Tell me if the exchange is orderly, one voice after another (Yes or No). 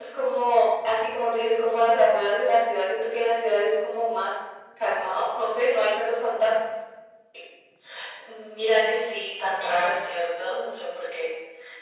Yes